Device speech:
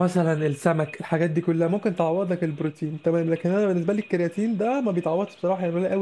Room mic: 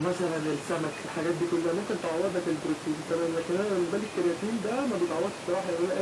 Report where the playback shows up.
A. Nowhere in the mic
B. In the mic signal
B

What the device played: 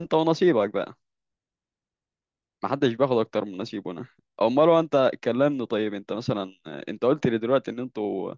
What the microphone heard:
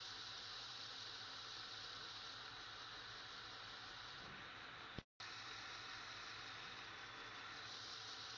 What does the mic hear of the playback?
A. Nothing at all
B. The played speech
A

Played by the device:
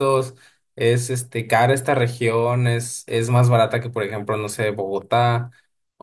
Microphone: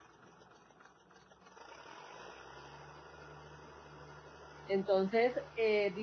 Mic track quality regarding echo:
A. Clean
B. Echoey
A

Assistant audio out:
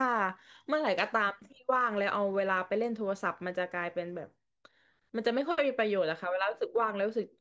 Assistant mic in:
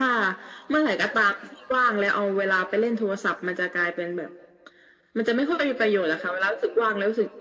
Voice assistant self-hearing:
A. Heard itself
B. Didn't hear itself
A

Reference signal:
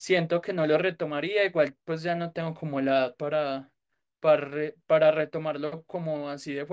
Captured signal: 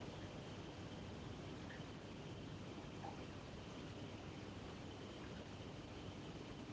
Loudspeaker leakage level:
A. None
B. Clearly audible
A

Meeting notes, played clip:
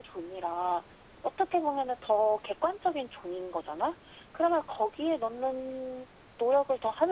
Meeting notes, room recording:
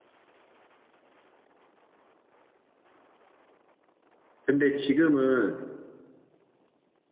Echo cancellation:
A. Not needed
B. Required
A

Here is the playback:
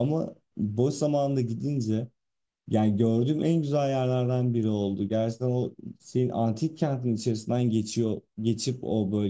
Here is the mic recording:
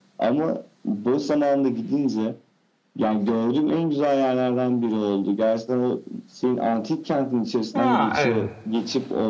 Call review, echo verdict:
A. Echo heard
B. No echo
A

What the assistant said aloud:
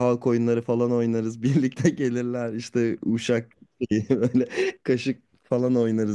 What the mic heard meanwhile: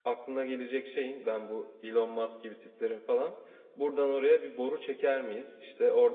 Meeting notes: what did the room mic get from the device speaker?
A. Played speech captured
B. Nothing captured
B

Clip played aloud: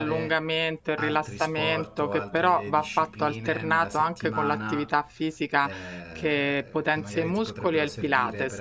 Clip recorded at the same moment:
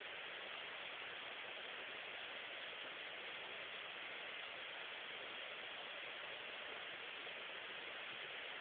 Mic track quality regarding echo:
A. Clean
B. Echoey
A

